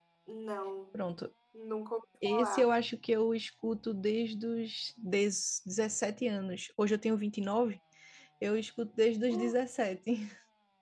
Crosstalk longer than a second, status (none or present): none